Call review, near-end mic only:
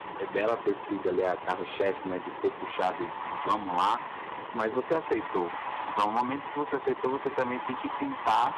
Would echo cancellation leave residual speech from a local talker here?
No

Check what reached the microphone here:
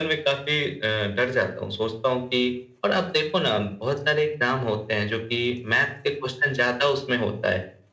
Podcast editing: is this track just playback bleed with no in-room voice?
Yes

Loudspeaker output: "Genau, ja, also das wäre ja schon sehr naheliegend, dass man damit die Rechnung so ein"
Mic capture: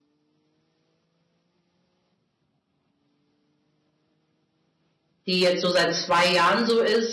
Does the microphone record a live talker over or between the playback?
Yes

